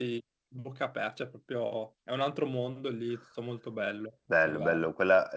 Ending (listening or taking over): taking over